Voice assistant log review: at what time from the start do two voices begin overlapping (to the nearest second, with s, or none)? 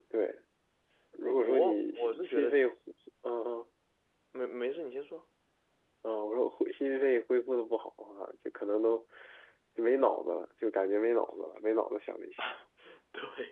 1 s